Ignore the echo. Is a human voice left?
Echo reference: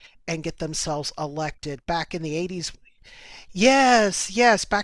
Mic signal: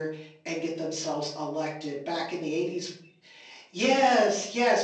No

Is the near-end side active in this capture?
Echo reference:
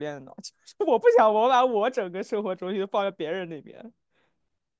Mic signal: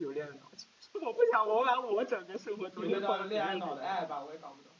Yes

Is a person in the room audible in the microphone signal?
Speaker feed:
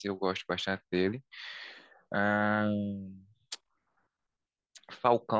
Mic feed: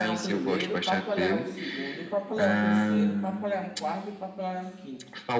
Yes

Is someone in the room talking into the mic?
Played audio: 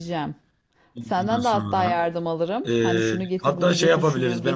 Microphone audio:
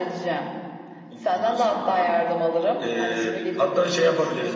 No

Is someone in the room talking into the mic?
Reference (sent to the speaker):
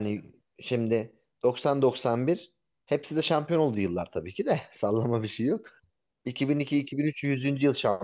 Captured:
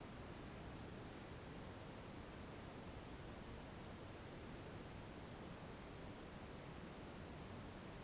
No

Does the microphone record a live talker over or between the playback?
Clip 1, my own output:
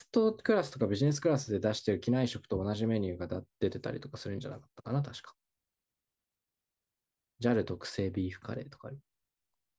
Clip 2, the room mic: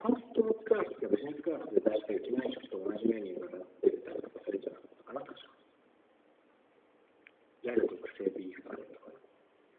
No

